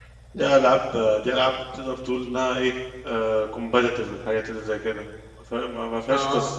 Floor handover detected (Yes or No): No